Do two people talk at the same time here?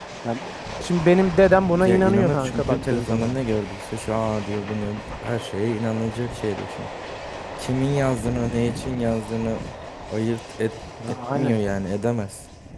Yes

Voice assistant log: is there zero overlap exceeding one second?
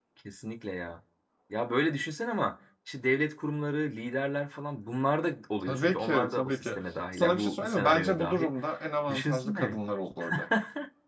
No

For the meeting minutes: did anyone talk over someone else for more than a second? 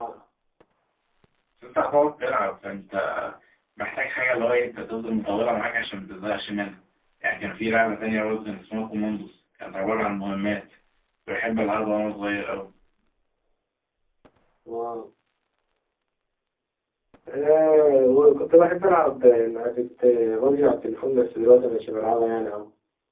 No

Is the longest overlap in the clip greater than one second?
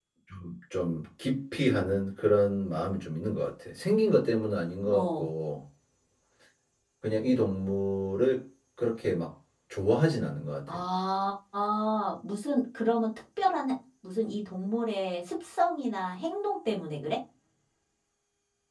No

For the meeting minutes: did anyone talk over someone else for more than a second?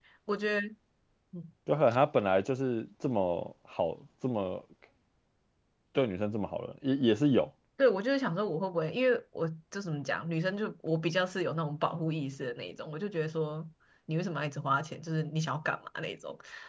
No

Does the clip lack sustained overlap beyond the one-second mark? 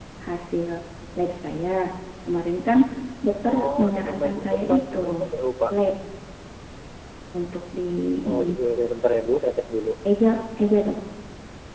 No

